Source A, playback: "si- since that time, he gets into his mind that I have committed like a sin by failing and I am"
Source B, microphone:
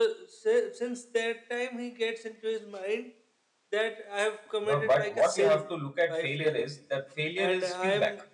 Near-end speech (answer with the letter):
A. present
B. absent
A